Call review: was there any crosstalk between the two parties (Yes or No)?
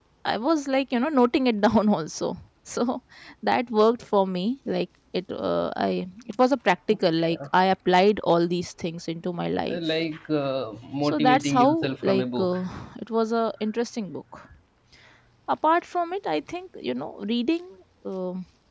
Yes